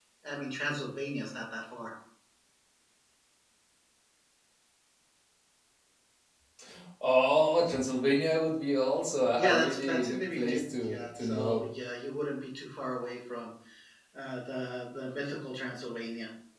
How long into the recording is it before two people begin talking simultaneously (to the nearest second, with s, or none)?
9 s